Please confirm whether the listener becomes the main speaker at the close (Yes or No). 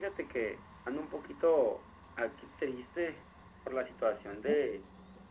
No